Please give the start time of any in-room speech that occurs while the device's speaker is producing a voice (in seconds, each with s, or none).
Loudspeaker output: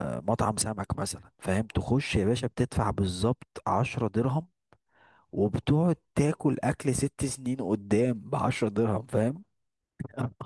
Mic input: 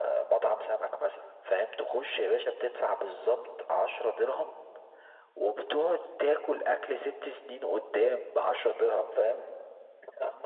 none